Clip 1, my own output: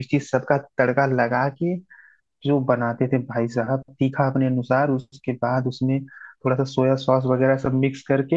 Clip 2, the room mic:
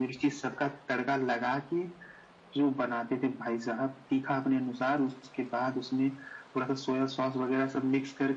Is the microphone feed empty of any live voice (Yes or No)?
Yes